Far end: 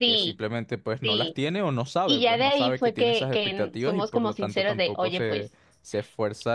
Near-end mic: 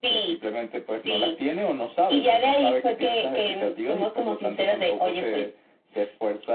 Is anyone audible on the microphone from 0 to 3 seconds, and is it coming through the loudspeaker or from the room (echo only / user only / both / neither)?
echo only